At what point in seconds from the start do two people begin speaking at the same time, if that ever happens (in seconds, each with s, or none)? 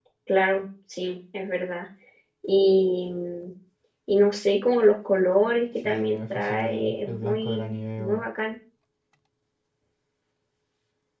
5.8 s